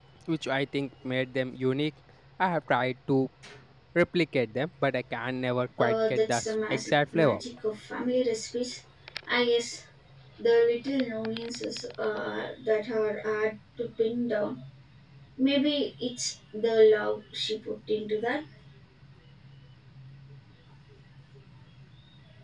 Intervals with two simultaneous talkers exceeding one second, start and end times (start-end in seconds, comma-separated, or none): 5.8-7.4